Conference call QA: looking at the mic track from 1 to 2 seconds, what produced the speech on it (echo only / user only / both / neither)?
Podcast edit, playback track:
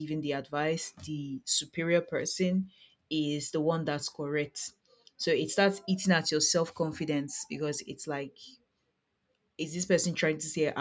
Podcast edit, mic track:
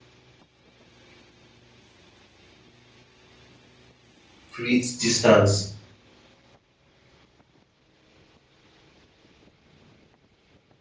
neither